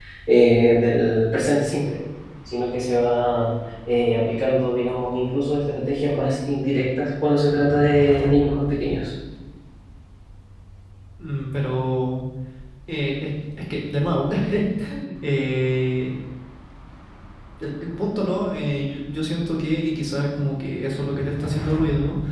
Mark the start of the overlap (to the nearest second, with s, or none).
none